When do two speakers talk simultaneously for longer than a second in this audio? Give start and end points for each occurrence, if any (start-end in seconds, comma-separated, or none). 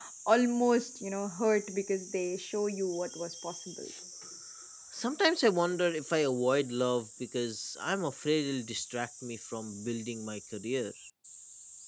none